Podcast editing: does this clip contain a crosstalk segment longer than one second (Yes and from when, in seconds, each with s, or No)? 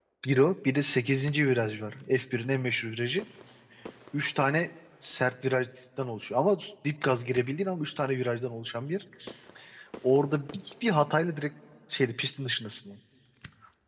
No